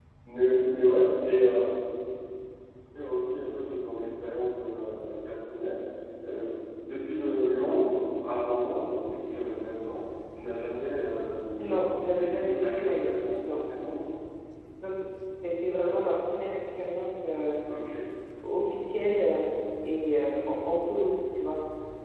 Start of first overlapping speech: 11.6 s

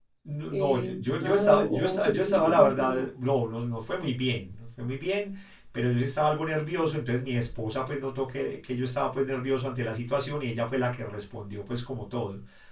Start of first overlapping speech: 0.5 s

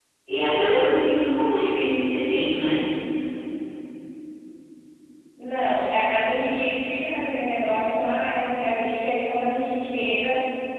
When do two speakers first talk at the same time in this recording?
none

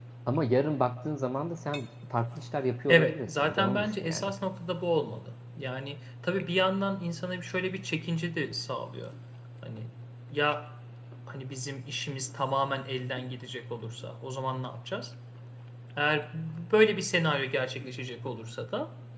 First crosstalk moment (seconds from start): 2.9 s

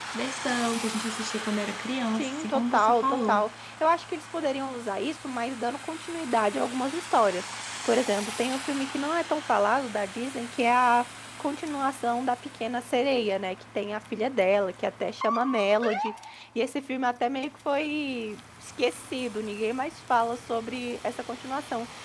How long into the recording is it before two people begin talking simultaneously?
2.2 s

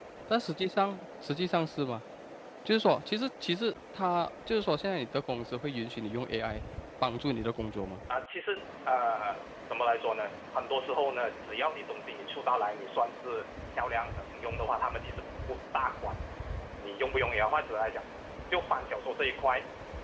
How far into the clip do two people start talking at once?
none

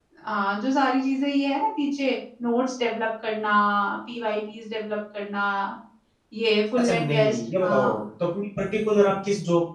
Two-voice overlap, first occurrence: 6.8 s

